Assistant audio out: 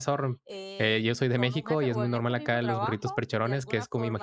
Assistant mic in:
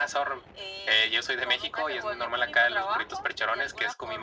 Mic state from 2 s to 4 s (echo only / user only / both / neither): echo only